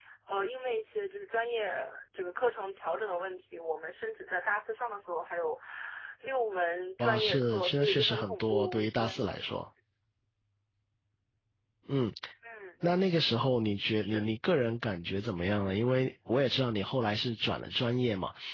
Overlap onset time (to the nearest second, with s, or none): 7 s